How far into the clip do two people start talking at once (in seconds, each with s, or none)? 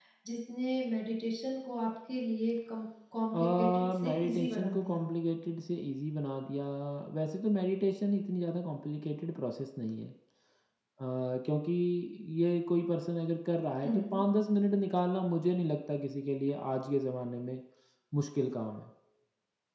3.3 s